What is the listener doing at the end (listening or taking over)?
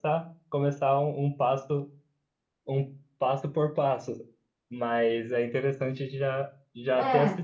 listening